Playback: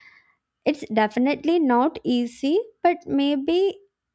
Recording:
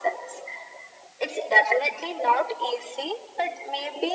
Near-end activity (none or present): none